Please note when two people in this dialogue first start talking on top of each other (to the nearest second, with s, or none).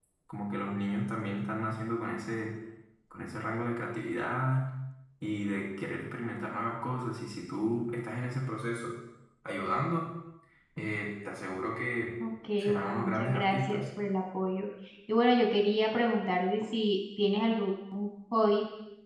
13 s